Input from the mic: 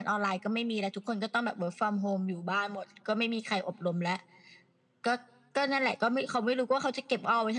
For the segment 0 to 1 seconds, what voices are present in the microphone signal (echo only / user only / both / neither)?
echo only